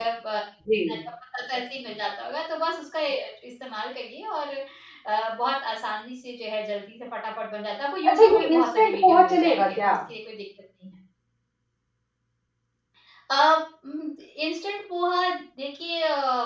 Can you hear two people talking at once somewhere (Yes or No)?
Yes